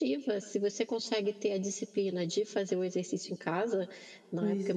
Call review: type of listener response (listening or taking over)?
listening